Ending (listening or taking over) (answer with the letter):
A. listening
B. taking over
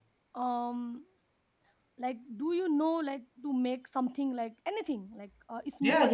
B